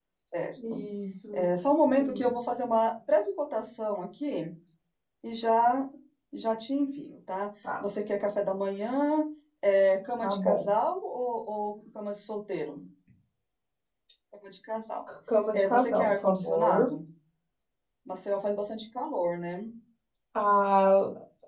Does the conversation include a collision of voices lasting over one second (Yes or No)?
Yes